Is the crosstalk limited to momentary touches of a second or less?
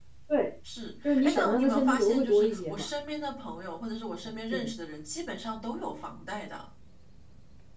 No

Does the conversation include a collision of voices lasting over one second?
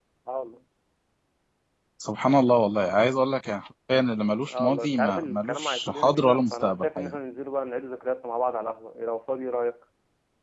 Yes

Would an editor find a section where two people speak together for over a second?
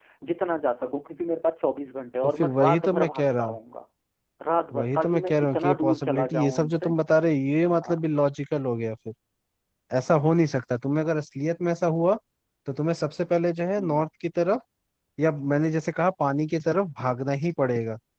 Yes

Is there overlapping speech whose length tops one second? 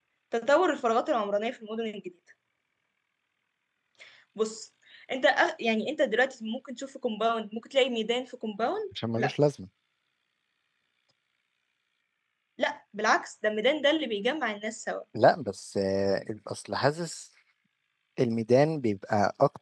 No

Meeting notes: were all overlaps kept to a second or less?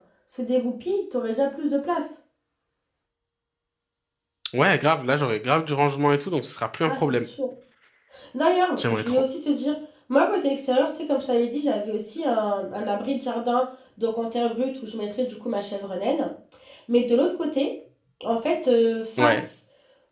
Yes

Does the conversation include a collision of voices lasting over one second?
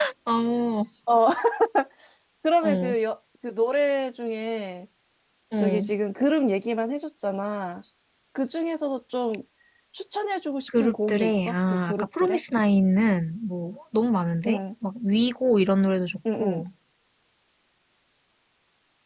Yes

